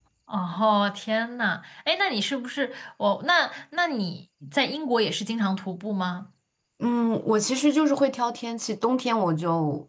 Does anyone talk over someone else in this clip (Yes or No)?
No